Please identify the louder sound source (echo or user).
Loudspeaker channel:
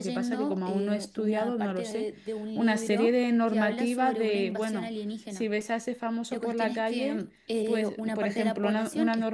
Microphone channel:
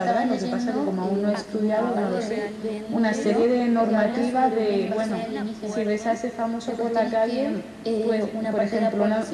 echo